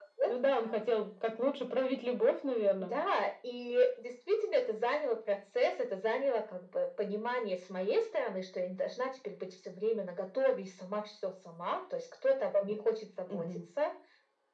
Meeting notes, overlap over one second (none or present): none